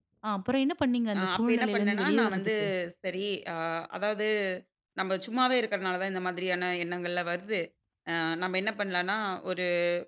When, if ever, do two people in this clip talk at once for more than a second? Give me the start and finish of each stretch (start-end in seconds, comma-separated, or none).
1.2-2.5